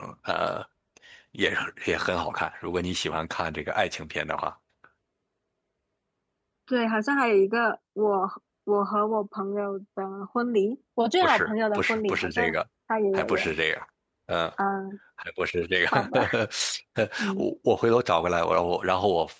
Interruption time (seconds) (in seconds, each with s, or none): 11.2 s